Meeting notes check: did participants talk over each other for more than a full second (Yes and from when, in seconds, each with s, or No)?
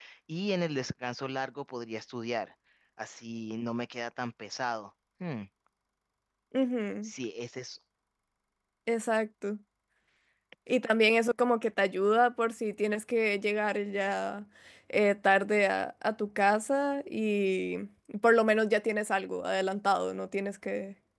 No